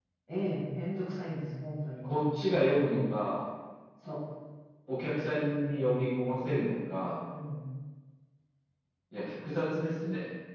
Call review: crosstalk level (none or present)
none